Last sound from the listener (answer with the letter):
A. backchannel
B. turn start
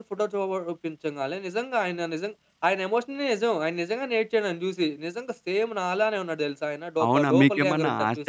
B